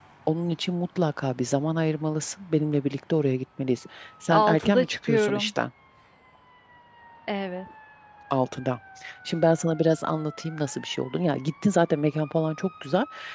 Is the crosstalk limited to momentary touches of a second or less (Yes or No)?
No